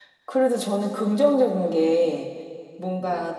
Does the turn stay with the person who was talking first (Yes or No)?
Yes